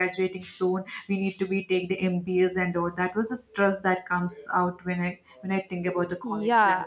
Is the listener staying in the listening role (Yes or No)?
No